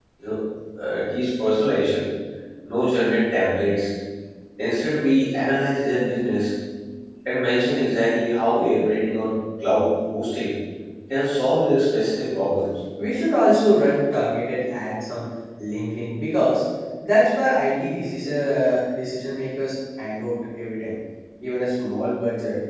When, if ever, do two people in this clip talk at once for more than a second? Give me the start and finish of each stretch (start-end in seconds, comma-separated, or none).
none